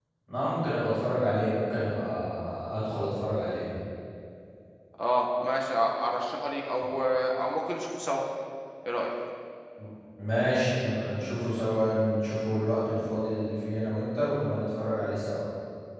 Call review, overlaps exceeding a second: none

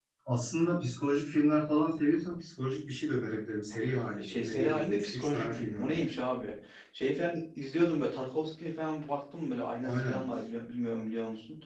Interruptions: present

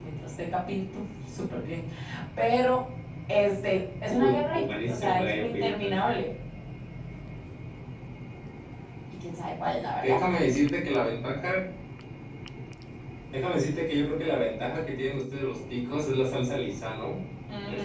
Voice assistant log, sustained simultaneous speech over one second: present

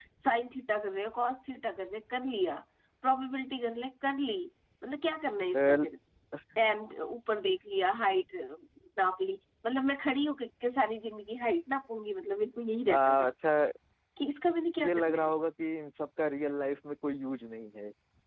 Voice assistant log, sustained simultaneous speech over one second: none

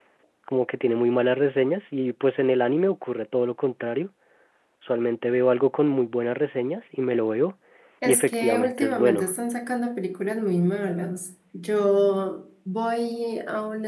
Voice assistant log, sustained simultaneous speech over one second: present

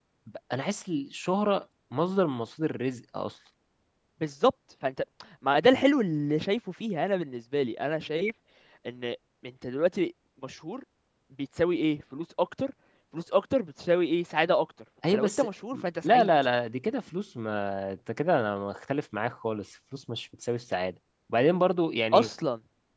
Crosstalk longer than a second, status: none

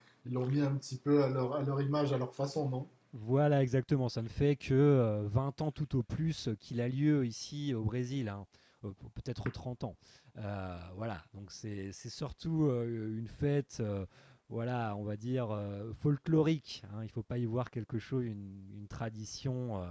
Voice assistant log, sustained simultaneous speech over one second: none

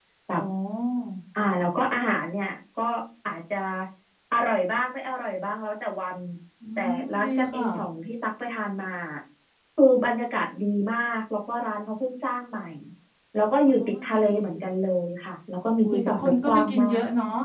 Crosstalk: present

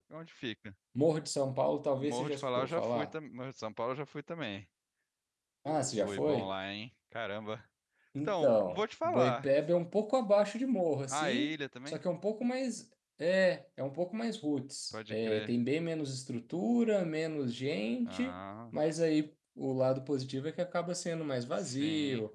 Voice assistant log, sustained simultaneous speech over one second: present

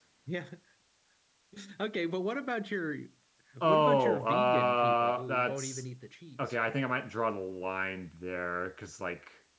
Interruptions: present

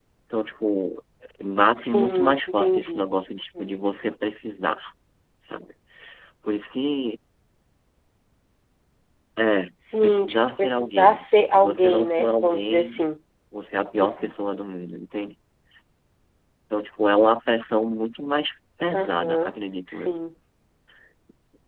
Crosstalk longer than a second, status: present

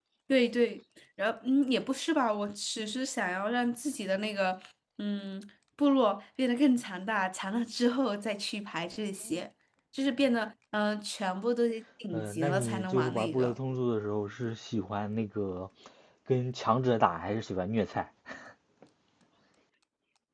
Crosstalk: present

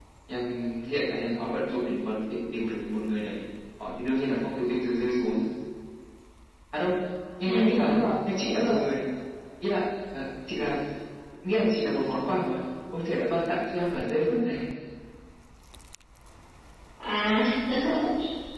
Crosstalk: present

